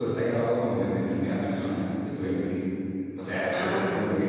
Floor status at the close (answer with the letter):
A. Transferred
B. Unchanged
B